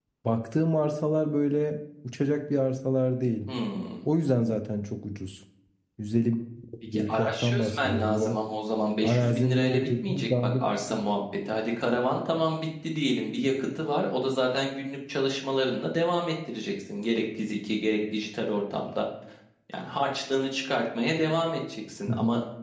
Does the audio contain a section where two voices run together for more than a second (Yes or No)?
Yes